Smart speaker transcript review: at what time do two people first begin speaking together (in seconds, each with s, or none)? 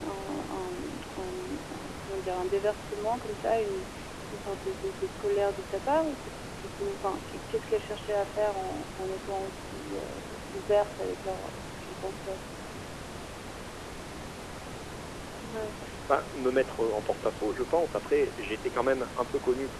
none